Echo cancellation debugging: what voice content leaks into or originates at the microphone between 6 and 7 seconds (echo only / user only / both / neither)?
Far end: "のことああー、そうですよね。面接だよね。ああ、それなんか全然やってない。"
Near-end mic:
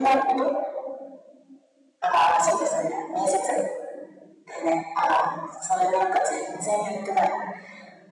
echo only